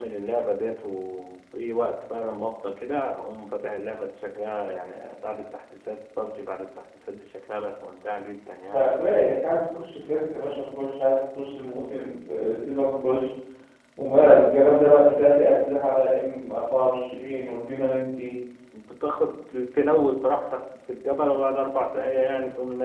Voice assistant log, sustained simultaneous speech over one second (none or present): none